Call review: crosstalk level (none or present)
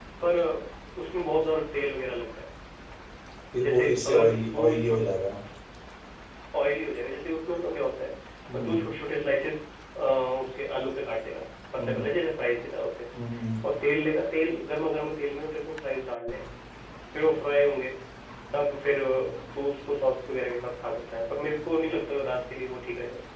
present